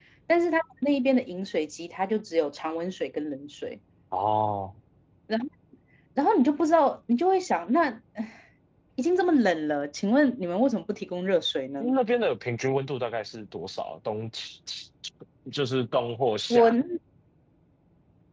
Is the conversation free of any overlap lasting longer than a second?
Yes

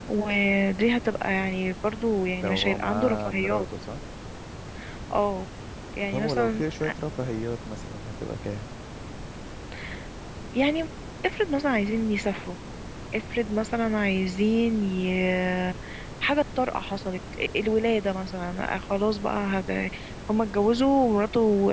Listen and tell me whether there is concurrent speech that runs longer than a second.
Yes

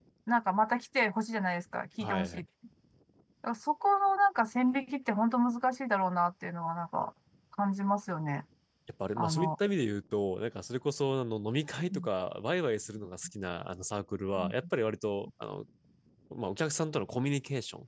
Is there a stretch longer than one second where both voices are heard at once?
No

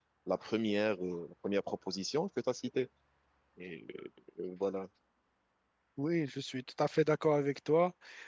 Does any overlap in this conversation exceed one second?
No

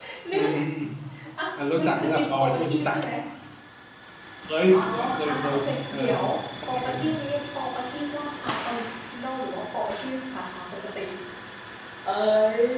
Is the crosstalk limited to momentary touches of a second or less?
No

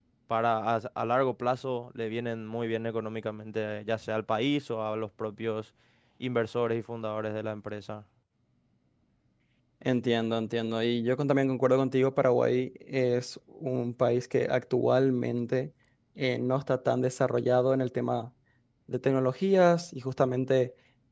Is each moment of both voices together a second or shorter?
Yes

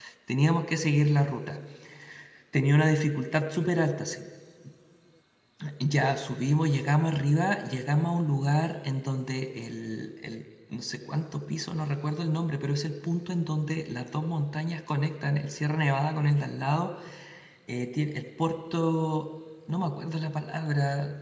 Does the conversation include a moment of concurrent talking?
No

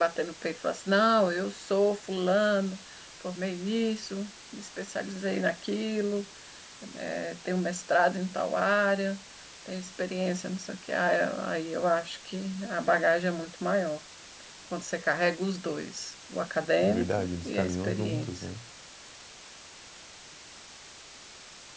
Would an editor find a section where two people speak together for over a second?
Yes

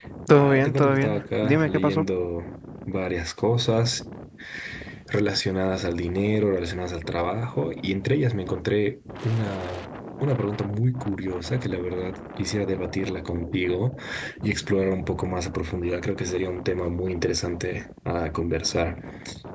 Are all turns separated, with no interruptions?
No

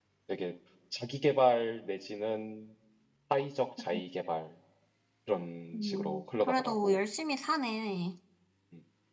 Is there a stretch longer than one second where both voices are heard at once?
Yes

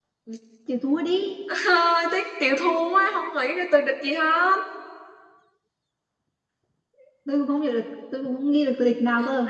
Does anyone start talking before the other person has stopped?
No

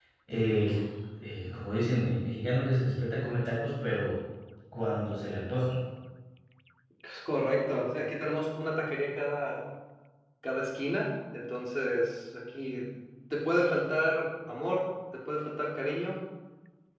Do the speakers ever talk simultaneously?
No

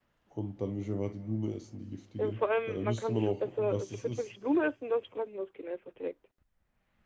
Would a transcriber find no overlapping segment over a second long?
No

